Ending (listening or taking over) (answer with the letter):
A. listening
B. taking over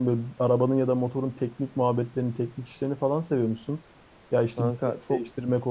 A